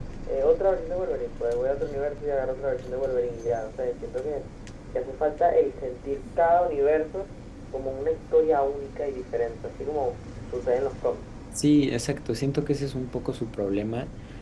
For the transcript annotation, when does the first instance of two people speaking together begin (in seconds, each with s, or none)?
none